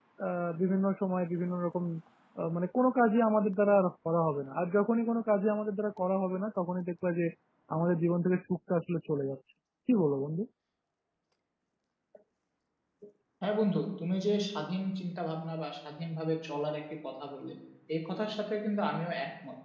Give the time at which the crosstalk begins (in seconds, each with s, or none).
none